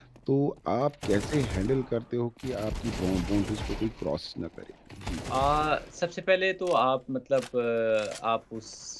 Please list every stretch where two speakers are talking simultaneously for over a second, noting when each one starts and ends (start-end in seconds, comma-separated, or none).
none